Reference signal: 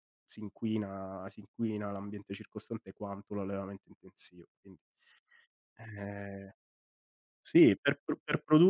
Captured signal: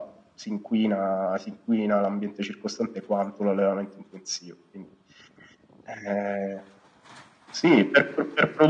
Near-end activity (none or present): none